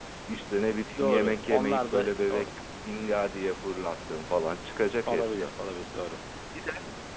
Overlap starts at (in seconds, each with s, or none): 1.0 s